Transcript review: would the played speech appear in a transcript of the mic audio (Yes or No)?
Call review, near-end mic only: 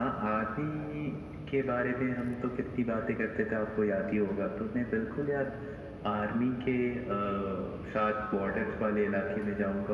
Yes